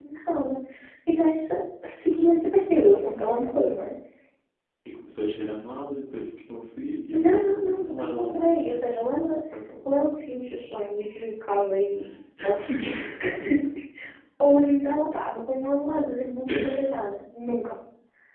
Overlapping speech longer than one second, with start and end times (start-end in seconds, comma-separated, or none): 7.1-8.6